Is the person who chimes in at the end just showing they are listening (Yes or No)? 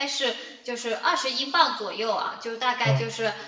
Yes